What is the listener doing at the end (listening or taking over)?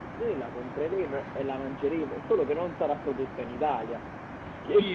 taking over